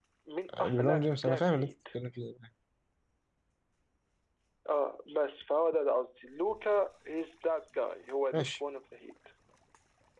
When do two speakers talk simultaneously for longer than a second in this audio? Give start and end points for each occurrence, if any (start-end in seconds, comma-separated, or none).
0.5-1.7